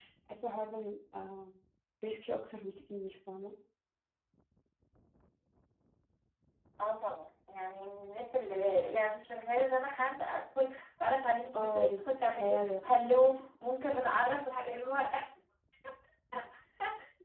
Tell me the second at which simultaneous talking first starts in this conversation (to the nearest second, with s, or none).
12 s